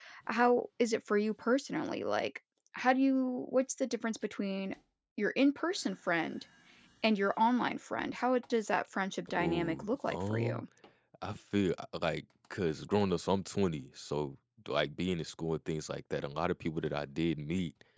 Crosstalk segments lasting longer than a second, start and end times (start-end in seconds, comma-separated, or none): 9.4-10.6